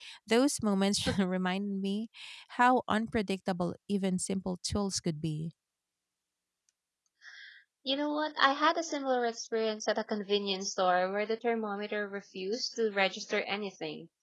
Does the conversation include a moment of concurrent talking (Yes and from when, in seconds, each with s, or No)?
No